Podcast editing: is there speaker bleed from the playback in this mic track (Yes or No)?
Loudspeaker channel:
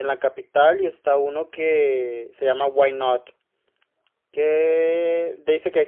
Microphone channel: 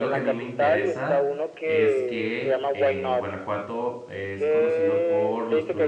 Yes